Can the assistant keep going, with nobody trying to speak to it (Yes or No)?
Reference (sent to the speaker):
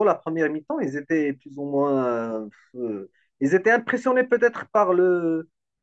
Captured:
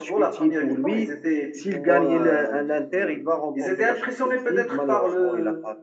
No